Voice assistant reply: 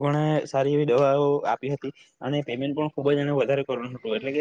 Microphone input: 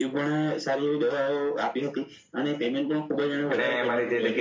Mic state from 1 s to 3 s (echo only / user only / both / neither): echo only